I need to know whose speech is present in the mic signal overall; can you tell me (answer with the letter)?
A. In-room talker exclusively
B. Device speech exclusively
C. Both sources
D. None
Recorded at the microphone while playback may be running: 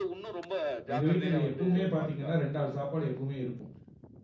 C